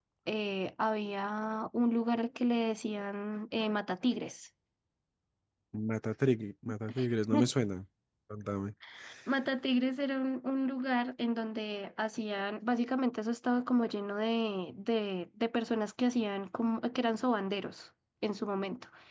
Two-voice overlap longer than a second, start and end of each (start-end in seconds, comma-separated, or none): none